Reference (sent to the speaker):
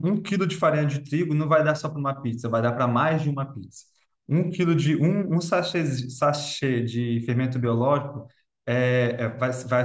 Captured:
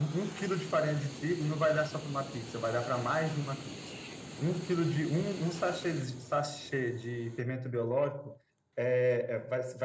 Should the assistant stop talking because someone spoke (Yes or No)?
No